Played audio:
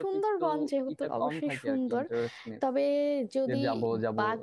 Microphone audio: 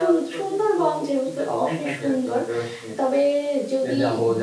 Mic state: echo only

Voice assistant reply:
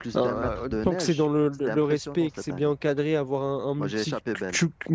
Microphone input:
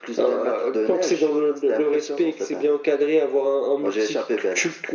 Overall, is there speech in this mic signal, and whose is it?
echo only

